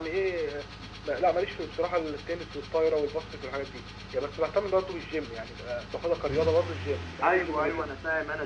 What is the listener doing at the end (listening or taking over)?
taking over